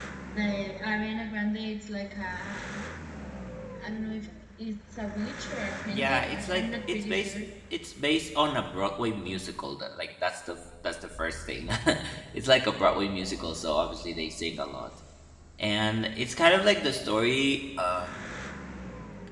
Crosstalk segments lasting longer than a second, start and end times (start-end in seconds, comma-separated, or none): 5.9-7.3